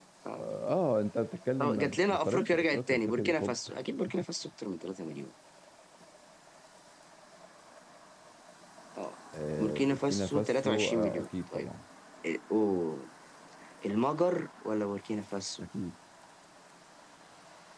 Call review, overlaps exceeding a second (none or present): present